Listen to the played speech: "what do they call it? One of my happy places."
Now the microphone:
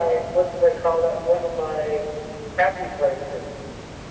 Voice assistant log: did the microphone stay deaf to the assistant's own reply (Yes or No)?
No